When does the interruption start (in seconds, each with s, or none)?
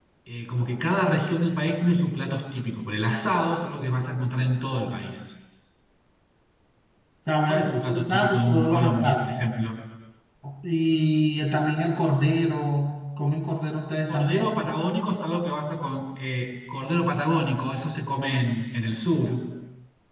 7.5 s